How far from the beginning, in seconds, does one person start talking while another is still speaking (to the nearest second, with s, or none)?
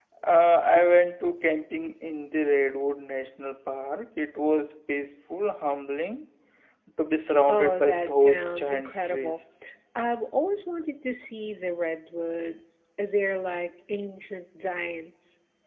7 s